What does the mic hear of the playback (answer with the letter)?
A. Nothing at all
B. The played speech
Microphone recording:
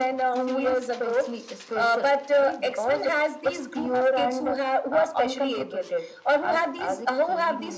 B